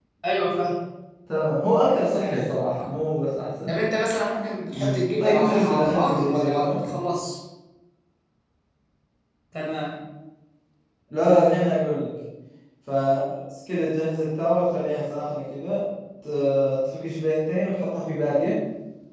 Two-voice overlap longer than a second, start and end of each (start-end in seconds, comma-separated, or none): 4.7-6.8